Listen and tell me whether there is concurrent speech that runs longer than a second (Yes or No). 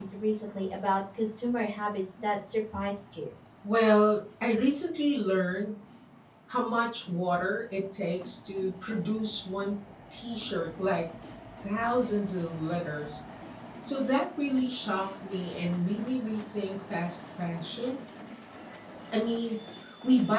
No